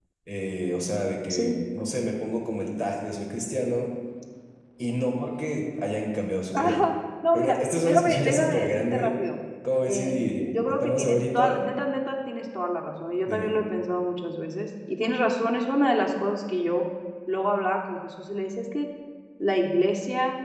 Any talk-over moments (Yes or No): Yes